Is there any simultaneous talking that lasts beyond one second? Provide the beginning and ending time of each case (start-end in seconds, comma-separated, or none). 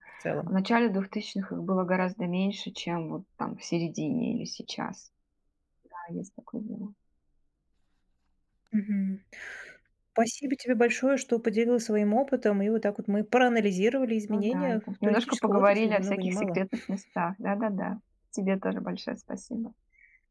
14.3-16.6